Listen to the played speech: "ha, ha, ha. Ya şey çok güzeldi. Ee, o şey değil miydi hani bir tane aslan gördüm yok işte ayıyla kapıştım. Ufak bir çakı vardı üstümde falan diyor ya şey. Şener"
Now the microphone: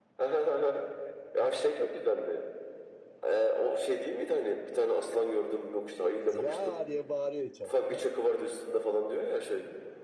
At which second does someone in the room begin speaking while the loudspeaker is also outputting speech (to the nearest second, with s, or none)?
6 s